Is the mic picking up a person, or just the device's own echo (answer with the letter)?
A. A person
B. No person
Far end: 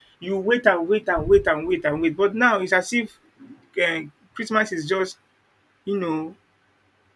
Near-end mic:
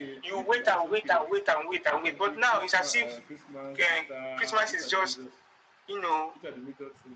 A